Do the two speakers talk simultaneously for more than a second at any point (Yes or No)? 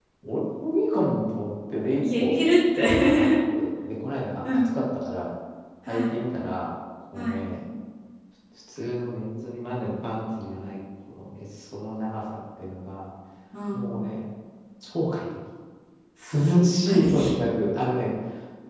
No